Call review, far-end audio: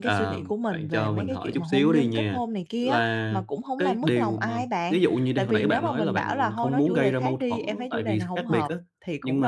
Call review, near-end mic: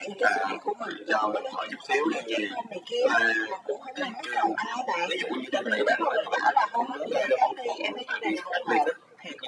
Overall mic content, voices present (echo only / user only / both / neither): echo only